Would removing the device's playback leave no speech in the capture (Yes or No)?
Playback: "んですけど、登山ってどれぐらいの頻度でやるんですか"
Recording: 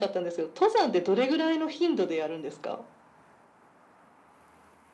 Yes